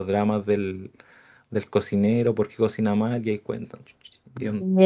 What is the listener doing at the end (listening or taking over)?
taking over